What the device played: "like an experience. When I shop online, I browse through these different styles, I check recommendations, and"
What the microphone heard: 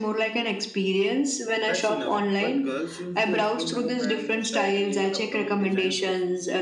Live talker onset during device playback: 1.6 s

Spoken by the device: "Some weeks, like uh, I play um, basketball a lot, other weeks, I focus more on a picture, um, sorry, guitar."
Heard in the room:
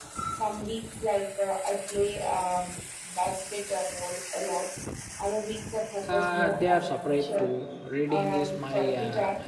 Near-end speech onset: 6.0 s

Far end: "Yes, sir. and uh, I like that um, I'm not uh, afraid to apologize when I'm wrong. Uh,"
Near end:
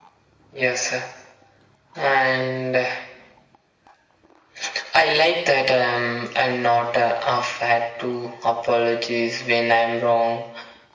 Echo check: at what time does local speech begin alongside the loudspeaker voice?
none

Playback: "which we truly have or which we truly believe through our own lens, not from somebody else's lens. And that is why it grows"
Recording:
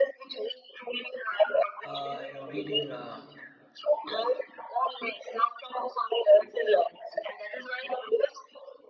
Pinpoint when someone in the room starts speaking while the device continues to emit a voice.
1.9 s

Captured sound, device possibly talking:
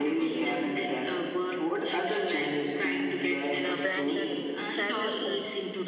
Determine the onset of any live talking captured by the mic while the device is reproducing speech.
3.6 s

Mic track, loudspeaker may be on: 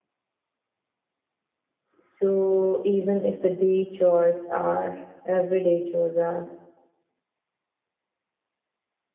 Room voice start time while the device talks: 2.0 s

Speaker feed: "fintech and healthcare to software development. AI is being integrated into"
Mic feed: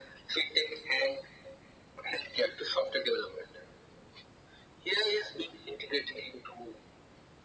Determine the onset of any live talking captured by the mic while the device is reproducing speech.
none

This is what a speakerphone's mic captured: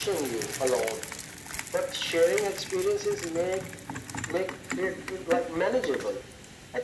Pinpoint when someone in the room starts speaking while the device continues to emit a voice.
none

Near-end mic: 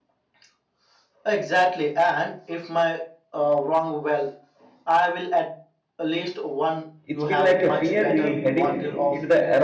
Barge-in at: 7.1 s

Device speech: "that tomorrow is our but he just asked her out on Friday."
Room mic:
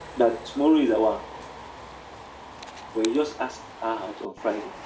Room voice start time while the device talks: none

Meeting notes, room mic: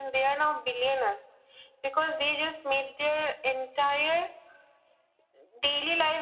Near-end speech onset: none

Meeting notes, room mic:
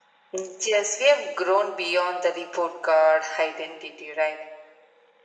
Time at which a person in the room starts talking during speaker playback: none

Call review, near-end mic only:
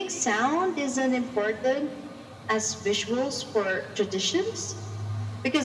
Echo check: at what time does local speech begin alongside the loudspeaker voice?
none

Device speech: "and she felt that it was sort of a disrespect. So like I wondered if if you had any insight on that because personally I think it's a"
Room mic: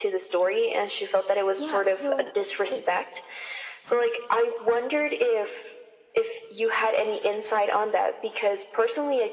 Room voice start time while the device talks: 1.6 s

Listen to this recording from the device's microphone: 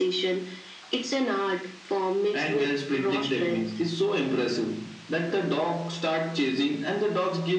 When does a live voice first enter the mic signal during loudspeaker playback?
none

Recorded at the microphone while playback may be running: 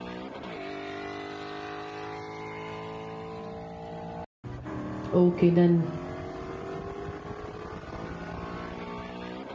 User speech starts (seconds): 5.1 s

